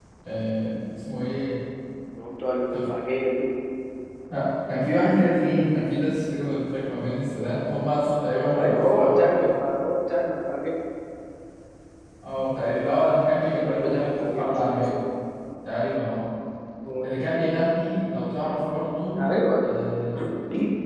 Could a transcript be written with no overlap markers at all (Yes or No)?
No